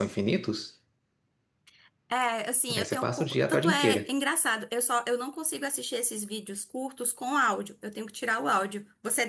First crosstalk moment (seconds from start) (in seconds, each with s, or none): 2.8 s